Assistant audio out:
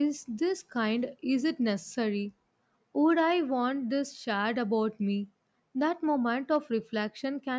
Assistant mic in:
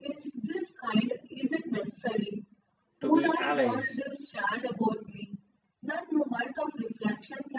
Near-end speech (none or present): present